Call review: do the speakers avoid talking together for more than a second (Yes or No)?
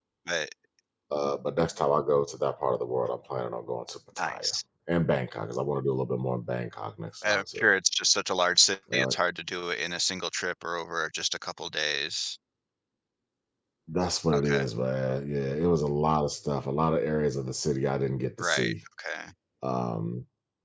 Yes